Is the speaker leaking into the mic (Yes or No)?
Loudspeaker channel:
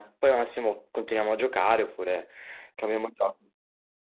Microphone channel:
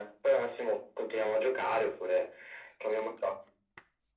Yes